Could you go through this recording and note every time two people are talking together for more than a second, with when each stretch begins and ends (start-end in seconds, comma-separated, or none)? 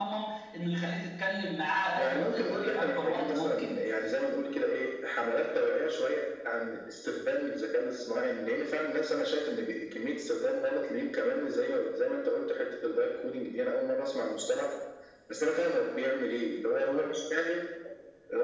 2.0-3.9